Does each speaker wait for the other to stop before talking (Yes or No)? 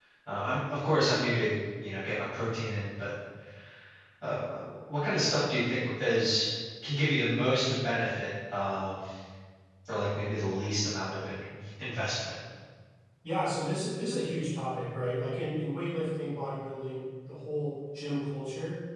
Yes